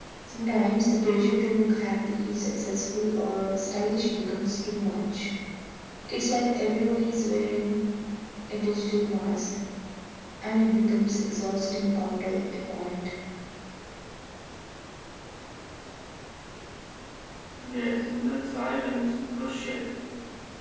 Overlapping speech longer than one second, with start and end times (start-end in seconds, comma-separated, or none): none